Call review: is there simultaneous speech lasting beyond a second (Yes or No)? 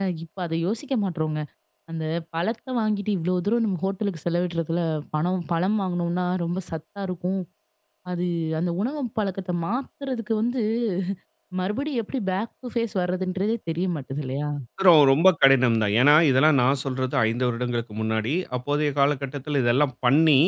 No